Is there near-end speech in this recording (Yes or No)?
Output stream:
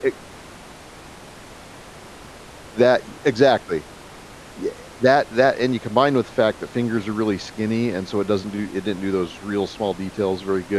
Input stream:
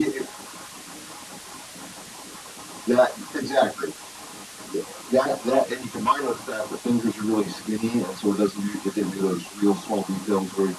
No